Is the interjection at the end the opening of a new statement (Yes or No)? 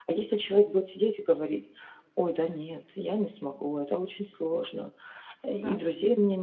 No